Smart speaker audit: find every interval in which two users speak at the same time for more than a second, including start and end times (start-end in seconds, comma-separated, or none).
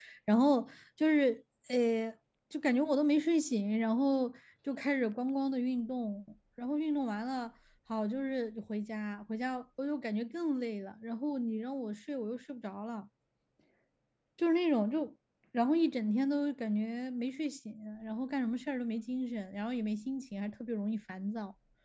none